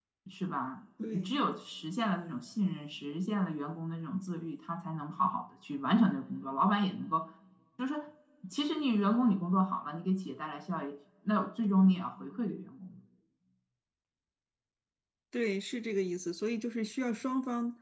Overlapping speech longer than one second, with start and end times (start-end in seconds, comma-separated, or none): none